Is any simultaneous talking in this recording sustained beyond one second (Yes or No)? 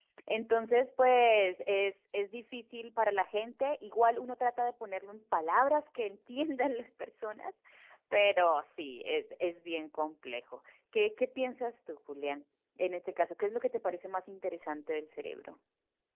No